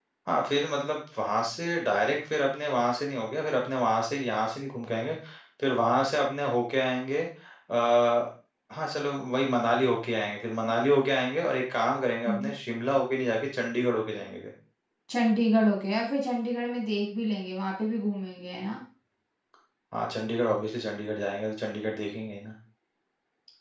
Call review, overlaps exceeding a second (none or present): none